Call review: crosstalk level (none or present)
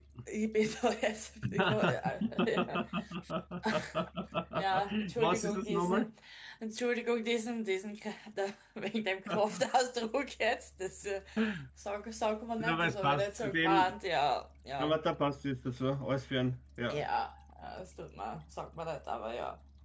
present